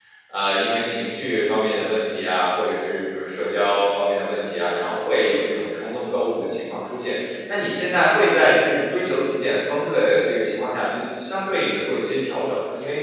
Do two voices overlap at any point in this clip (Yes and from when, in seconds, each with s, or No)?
No